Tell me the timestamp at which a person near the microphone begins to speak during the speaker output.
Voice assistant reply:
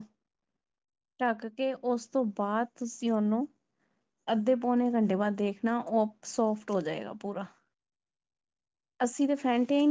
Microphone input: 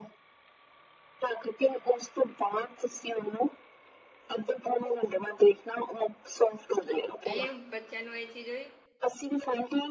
7.3 s

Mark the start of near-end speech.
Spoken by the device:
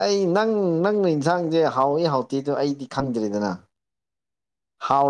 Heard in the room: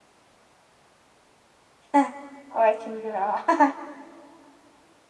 1.9 s

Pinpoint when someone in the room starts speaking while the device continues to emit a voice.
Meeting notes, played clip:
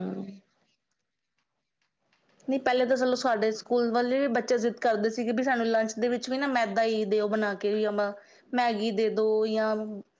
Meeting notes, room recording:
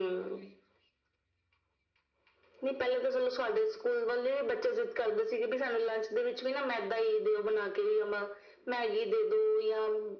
none

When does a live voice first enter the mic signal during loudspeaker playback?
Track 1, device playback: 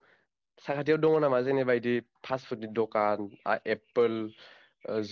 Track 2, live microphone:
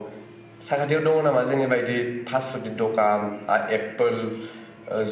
none

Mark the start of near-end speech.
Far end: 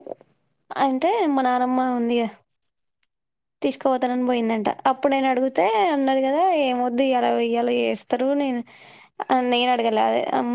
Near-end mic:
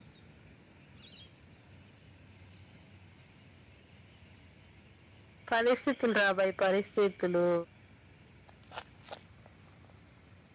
5.5 s

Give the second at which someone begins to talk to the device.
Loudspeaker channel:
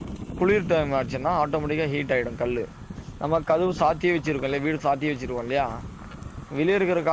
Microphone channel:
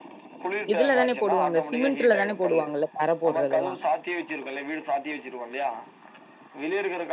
0.7 s

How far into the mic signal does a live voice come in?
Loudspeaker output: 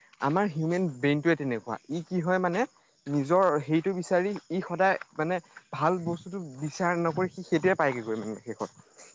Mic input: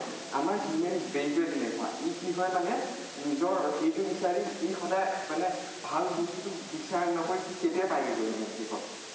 none

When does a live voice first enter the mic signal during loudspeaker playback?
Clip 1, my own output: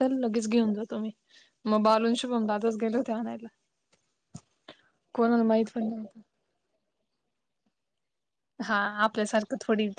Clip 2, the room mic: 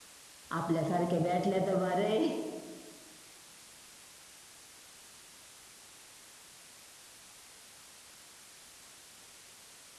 0.6 s

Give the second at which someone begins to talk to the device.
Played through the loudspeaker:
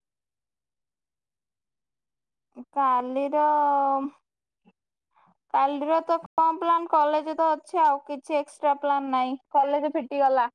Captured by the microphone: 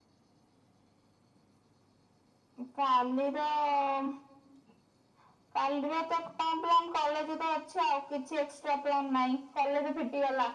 none

